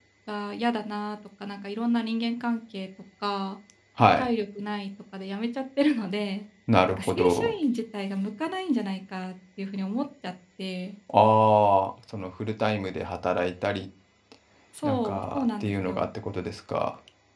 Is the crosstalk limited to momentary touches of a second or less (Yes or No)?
No